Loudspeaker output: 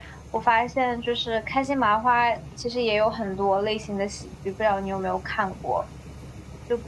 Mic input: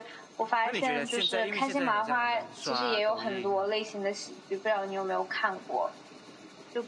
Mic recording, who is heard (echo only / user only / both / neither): both